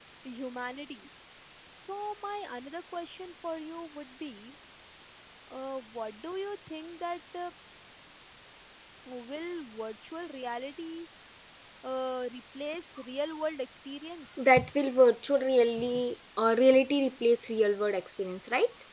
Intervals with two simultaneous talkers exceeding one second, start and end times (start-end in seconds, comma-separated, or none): none